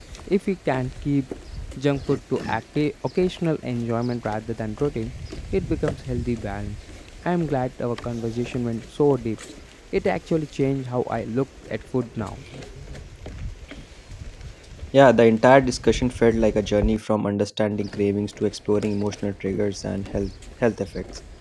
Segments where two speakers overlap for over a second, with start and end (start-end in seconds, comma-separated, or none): none